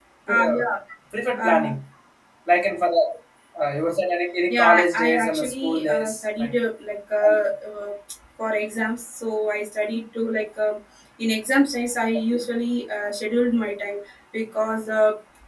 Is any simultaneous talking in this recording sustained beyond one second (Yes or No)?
Yes